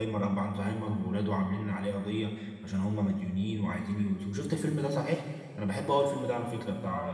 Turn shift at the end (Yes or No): Yes